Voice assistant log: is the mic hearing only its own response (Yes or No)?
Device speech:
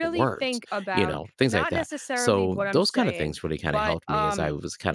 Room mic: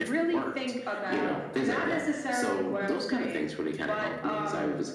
Yes